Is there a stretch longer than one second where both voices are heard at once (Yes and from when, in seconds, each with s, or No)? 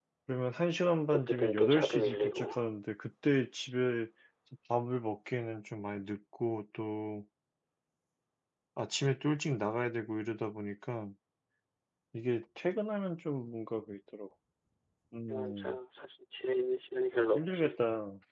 Yes, from 1.1 s